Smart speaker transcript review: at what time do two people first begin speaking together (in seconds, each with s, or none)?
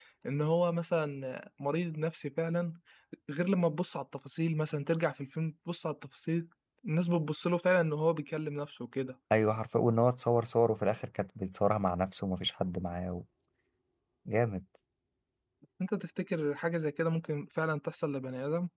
none